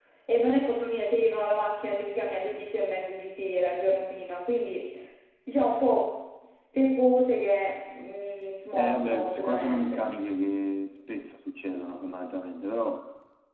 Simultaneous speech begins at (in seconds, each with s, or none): 8.8 s